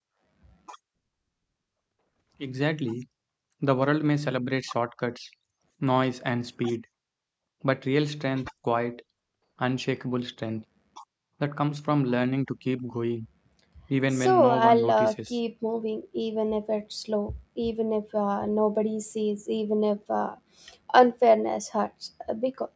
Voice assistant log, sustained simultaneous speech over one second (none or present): present